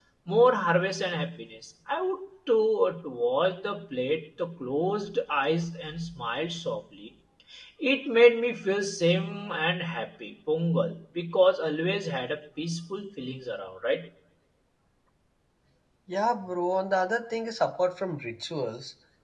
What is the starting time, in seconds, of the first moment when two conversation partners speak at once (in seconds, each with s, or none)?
none